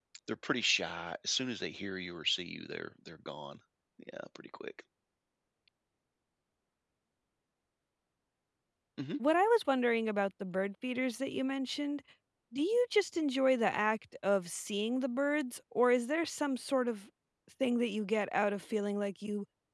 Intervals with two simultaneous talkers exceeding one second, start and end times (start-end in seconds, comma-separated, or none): none